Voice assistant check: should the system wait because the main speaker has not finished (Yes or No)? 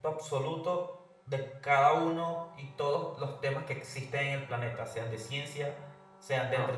Yes